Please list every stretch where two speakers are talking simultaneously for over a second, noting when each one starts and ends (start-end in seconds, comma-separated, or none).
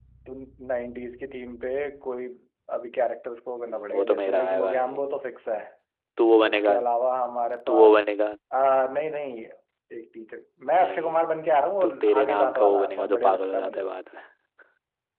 3.6-5.0, 11.8-13.9